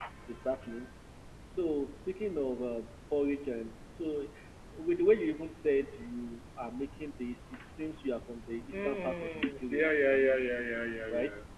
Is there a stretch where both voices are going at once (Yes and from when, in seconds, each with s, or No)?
Yes, from 8.7 s